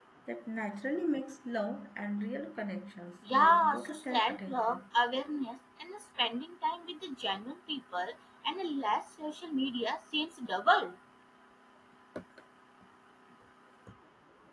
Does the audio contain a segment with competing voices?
Yes, from 3.2 s

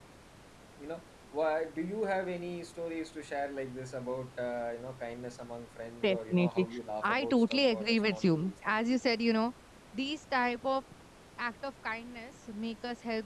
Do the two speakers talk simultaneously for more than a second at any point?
Yes, from 6.0 s

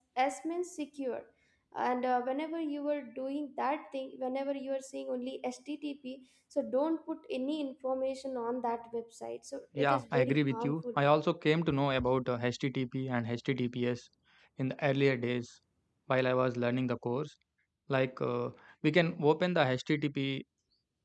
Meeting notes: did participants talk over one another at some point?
Yes, from 9.8 s

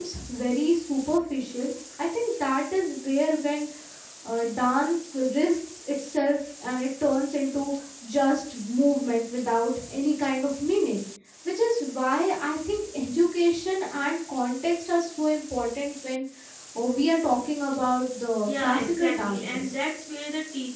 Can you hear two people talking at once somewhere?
Yes, from 18.5 s

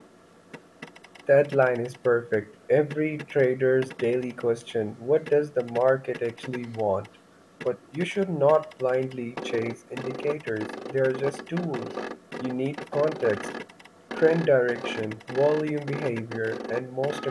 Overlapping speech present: No

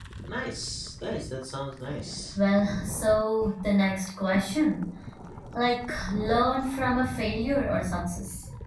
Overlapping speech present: No

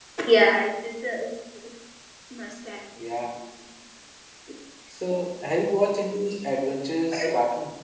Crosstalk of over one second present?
No

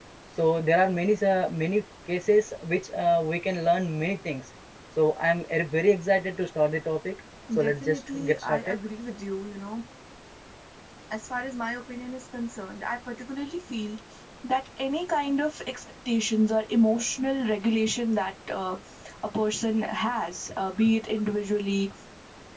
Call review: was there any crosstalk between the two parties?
Yes, from 7.5 s

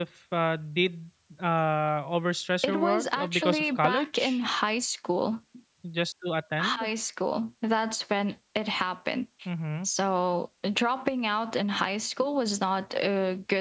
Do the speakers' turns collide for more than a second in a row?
Yes, from 2.6 s

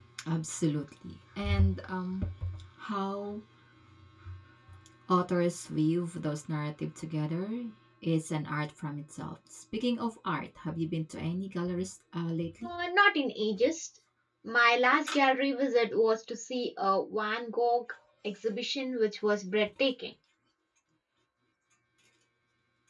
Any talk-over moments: No

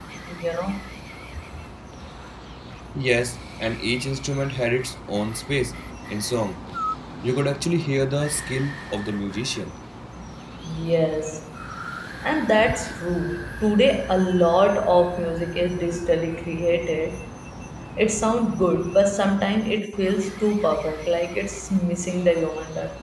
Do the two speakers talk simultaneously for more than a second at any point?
No

